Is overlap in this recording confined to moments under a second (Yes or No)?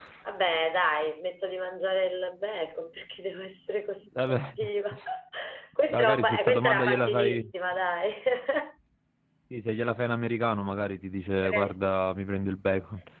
No